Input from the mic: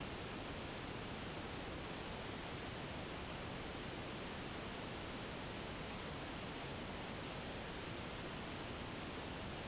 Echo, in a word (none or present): none